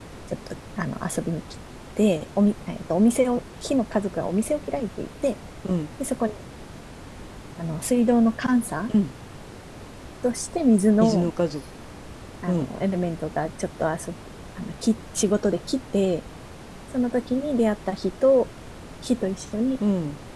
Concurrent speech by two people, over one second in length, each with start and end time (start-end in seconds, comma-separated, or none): none